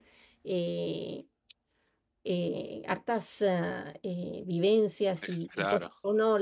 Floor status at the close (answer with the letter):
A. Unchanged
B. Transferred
A